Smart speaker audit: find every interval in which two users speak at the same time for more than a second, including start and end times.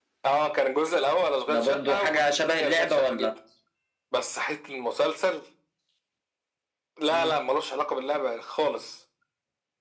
1.5-3.3

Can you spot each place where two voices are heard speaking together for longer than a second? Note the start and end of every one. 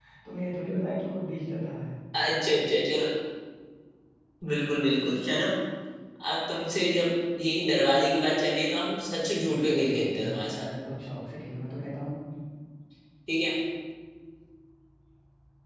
9.4-10.7

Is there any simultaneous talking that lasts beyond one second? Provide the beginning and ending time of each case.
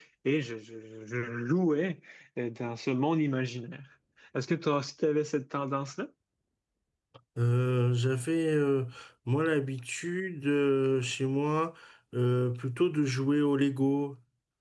none

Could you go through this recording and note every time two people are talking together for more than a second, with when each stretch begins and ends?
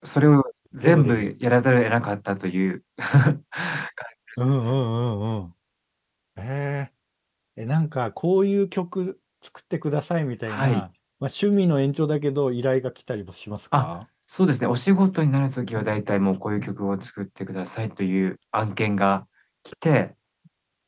none

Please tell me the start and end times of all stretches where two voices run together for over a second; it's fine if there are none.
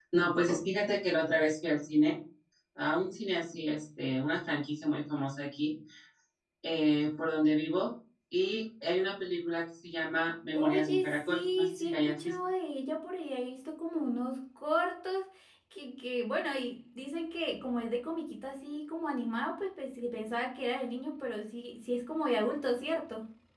10.6-12.3

